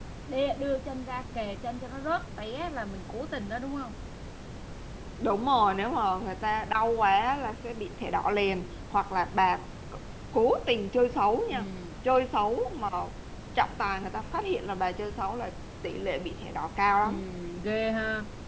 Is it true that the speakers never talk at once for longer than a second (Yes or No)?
Yes